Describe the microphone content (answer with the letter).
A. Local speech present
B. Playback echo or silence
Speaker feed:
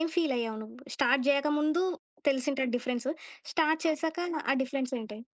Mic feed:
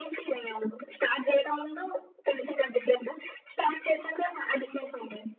B